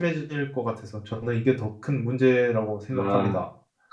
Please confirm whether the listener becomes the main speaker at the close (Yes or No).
Yes